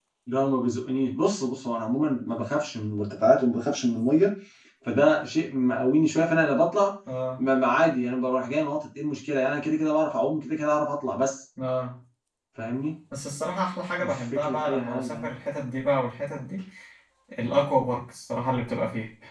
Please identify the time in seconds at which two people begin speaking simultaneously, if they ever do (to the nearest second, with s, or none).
14 s